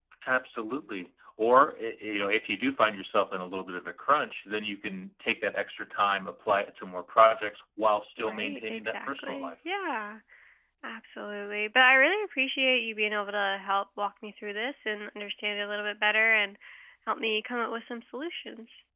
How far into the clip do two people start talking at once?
8 s

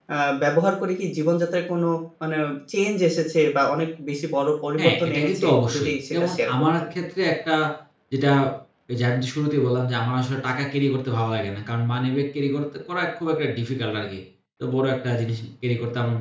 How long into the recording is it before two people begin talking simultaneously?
5 s

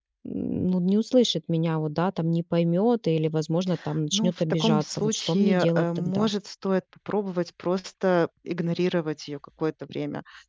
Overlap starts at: 4 s

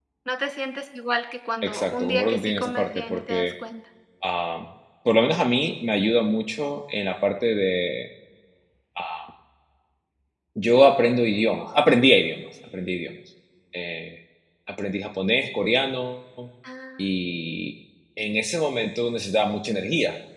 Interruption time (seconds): 2 s

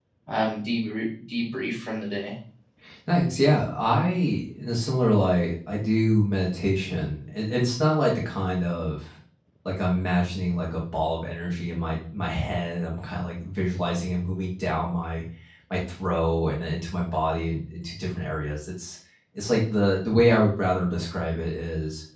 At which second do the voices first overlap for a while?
none

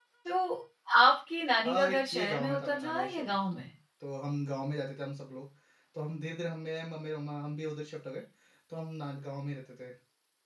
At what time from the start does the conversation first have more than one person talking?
2 s

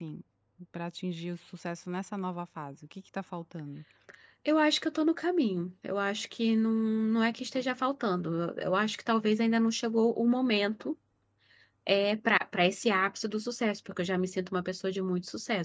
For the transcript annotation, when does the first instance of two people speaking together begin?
none

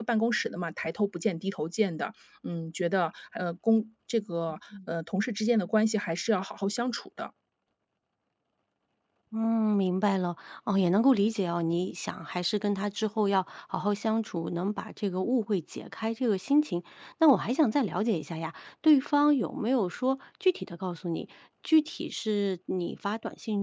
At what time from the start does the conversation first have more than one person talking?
none

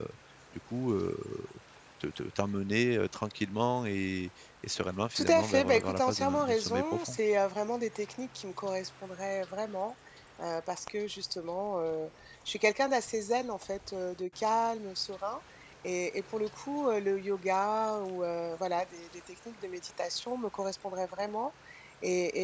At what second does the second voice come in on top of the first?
5 s

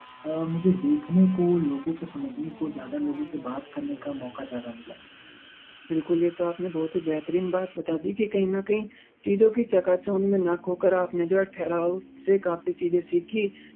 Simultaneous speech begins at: none

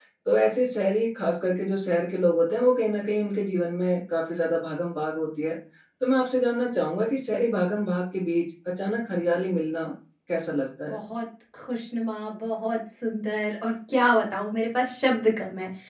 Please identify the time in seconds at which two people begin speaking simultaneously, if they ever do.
none

